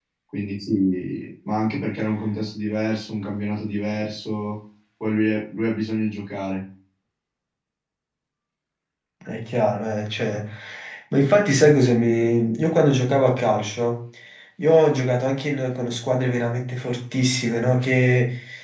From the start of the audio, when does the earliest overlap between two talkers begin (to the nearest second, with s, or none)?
none